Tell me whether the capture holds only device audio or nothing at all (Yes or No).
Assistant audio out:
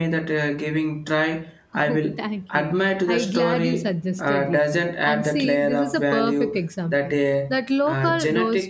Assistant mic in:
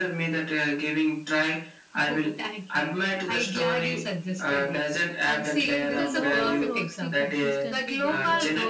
No